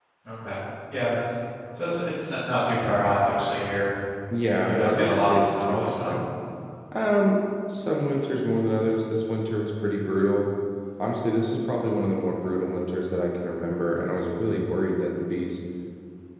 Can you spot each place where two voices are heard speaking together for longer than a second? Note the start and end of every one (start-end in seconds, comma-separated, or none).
4.6-6.2